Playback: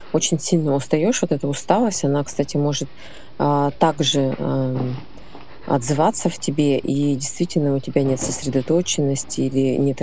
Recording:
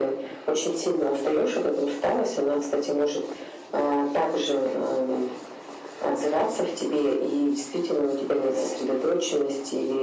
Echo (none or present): present